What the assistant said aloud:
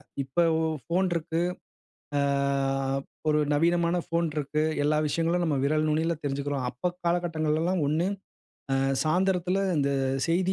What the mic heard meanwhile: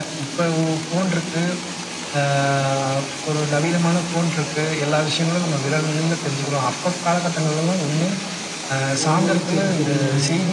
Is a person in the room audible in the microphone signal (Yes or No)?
Yes